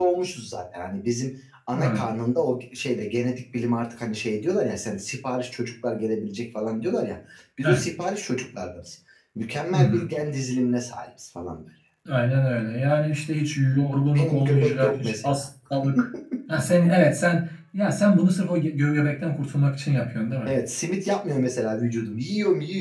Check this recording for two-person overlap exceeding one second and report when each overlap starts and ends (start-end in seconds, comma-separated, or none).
14.1-15.4